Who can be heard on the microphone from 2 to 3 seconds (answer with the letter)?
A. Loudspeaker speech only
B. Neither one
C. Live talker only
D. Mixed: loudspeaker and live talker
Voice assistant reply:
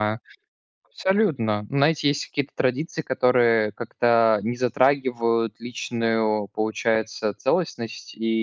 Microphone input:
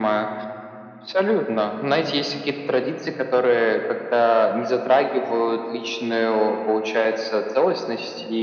A